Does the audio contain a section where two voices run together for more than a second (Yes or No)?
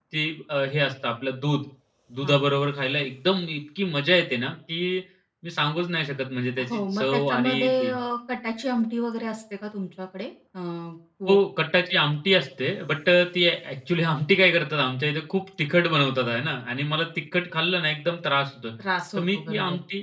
Yes